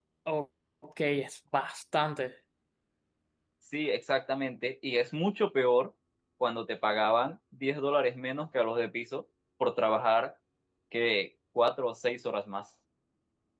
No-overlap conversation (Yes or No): Yes